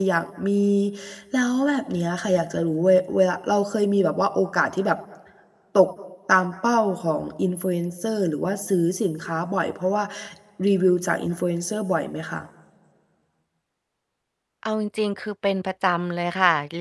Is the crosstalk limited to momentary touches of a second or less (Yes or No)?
Yes